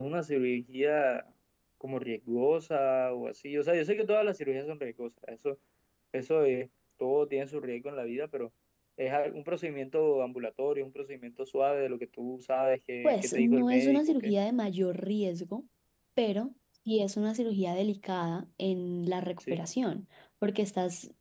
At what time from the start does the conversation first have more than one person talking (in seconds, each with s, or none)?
13.0 s